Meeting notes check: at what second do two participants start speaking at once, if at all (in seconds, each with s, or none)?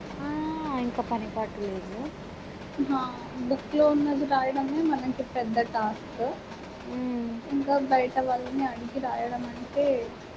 none